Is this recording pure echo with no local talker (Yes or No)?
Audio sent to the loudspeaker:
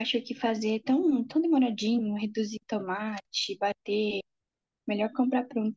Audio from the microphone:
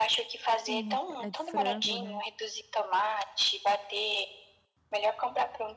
No